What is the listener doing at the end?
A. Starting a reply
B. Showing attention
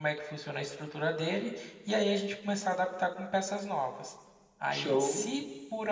B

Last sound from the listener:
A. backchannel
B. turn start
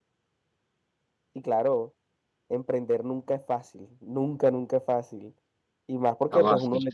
A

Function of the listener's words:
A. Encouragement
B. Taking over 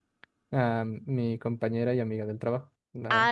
B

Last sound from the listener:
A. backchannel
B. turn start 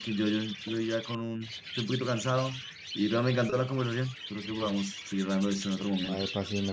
B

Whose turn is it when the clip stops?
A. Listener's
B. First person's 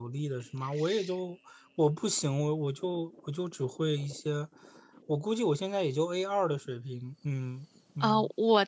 A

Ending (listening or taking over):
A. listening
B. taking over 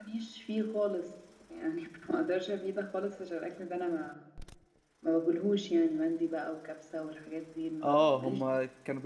B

